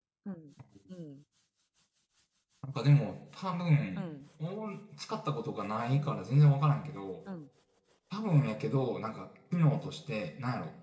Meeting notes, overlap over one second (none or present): none